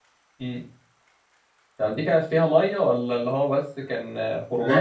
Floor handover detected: Yes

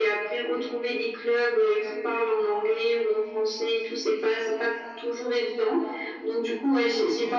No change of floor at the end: Yes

